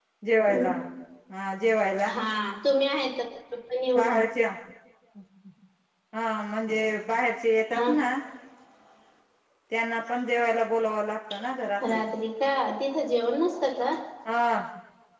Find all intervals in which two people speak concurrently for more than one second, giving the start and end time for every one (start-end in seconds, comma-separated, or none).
none